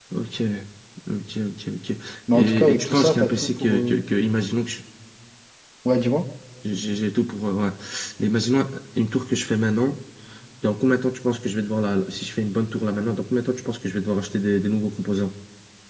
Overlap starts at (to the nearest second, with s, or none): 2 s